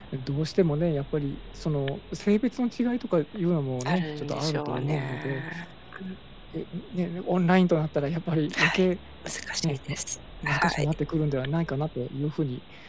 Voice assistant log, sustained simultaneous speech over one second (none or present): present